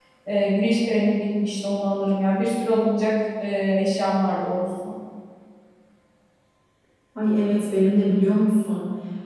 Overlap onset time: none

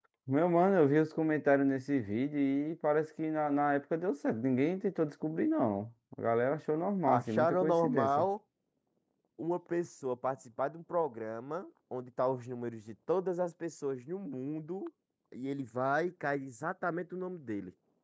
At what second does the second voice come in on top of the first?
7 s

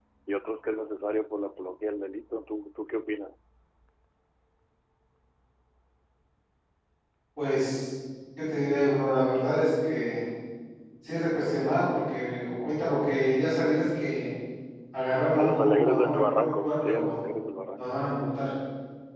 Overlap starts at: 15 s

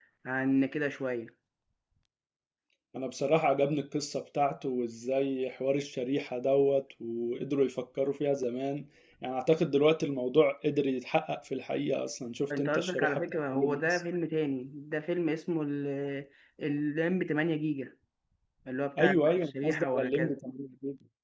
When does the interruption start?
13 s

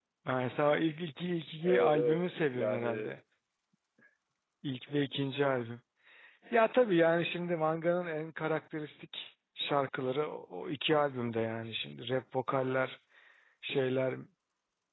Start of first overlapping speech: 2 s

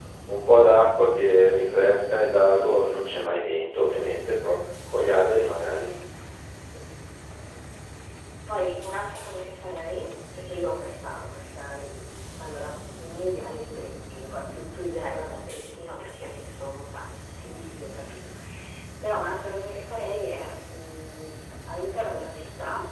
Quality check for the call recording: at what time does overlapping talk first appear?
none

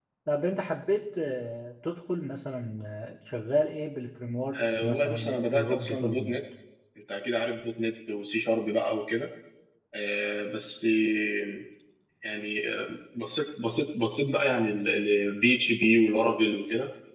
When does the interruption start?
5 s

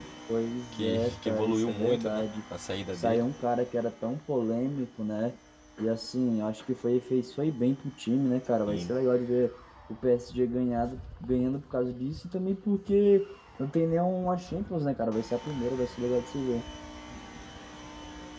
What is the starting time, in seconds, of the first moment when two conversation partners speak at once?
1 s

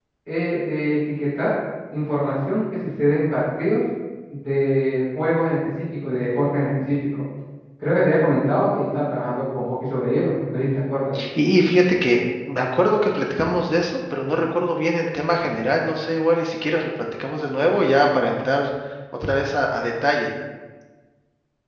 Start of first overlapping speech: none

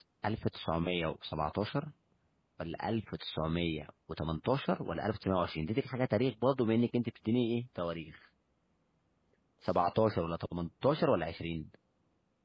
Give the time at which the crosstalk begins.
none

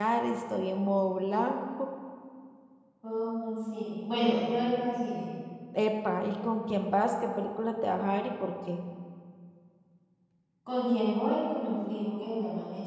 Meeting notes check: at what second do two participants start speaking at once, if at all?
none

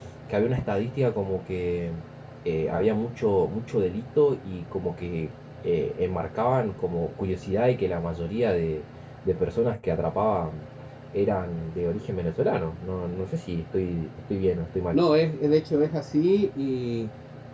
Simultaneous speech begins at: none

